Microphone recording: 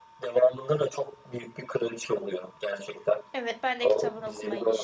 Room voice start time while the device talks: 3 s

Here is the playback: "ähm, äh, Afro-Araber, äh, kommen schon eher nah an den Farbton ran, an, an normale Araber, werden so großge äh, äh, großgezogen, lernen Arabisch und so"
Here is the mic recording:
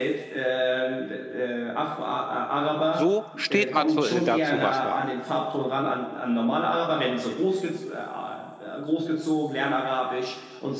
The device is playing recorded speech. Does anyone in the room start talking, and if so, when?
3 s

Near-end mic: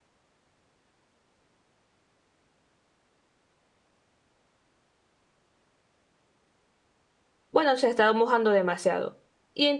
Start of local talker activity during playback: 8 s

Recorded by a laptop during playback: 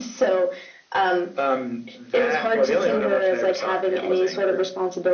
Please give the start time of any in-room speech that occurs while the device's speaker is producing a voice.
none

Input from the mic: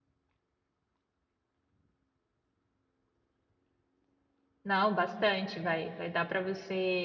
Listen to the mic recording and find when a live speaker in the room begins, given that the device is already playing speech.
5 s

